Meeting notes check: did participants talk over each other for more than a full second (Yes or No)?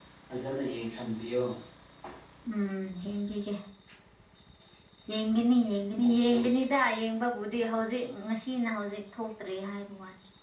No